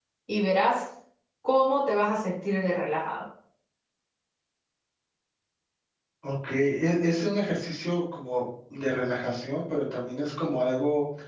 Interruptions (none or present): none